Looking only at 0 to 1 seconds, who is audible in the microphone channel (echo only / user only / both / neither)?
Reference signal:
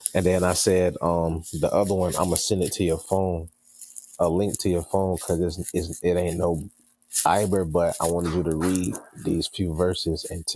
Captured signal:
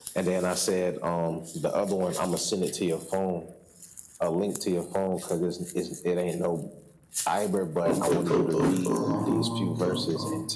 echo only